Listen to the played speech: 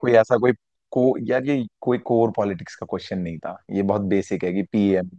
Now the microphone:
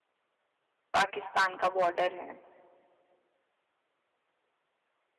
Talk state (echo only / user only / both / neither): user only